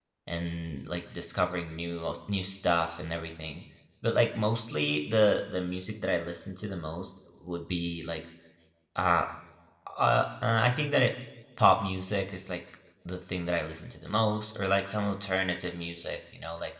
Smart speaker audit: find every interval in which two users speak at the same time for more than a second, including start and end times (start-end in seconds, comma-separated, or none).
none